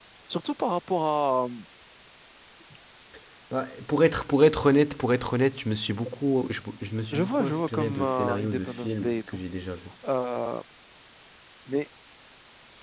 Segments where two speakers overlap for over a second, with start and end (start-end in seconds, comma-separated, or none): 7.1-9.4